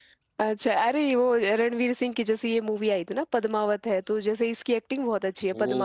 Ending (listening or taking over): taking over